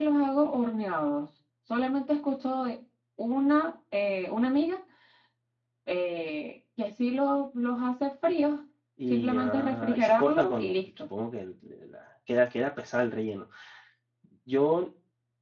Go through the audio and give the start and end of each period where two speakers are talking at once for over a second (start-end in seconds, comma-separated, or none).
9.1-11.1